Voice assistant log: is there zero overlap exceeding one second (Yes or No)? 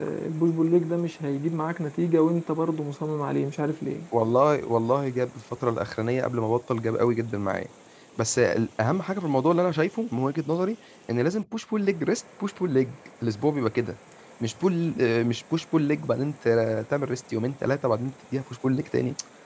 Yes